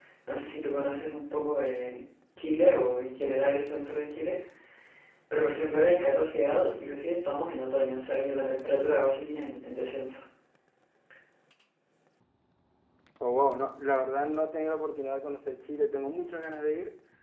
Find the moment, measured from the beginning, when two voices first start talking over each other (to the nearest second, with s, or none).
none